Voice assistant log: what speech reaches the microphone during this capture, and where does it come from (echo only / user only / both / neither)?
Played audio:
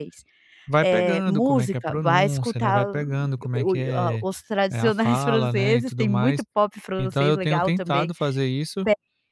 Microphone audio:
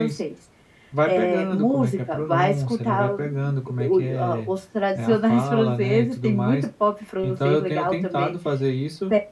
echo only